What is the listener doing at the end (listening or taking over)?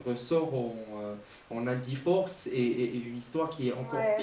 taking over